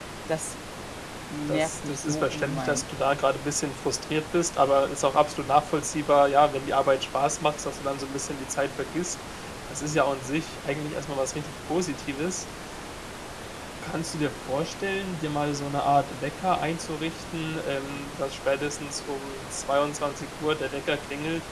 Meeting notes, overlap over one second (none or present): present